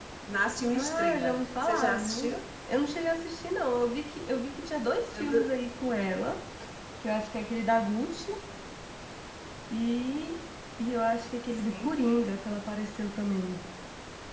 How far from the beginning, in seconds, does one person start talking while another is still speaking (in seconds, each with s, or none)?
0.7 s